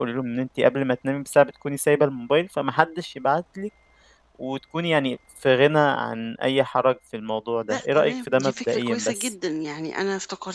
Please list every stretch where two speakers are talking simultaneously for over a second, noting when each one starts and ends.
7.7-9.3

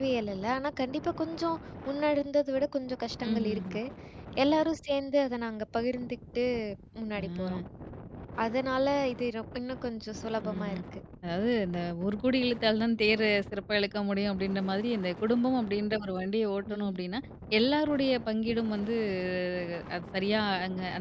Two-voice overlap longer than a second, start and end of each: none

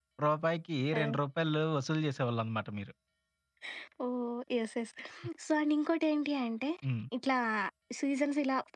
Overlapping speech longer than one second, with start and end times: none

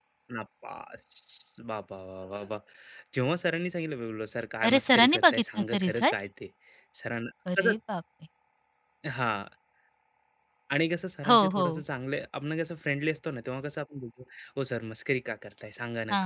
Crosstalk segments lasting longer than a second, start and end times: 4.6-6.1

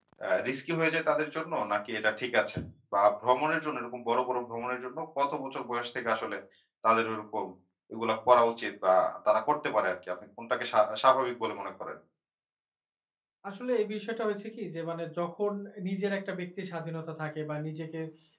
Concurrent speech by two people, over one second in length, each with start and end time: none

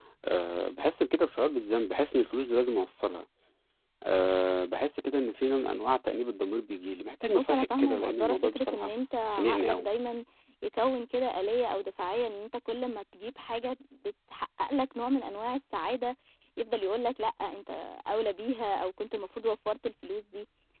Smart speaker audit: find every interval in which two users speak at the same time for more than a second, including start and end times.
7.3-8.9

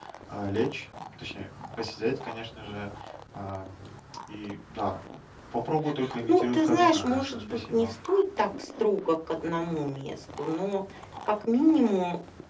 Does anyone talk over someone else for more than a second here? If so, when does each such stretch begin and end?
6.2-7.9

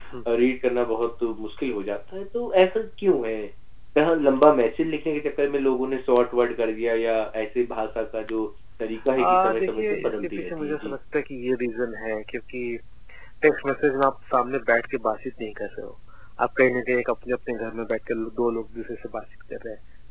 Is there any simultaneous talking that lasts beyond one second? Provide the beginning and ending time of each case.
9.2-10.9

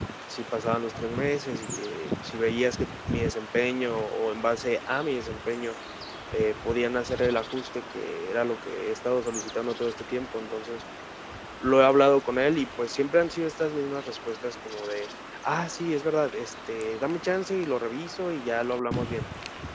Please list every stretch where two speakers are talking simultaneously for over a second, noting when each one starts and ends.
none

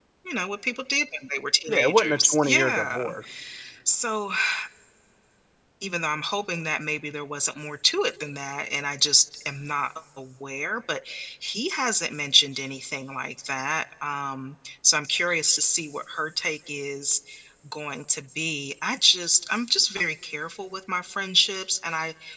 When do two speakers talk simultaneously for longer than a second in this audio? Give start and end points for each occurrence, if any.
1.7-3.1

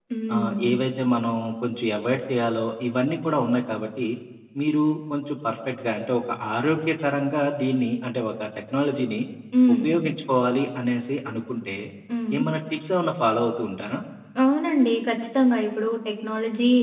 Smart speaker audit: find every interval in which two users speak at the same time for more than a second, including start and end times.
none

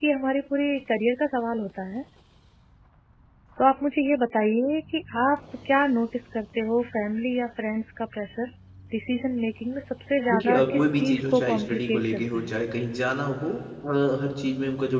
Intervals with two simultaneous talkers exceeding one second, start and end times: 10.3-12.5

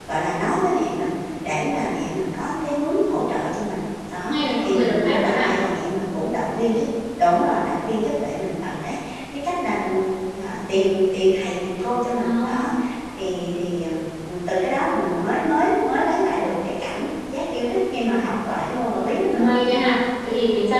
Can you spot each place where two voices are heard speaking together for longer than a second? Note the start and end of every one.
4.3-5.6

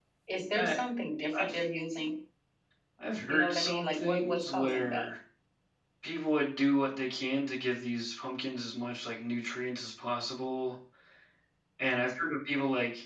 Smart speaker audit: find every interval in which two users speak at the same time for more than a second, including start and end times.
3.3-5.0

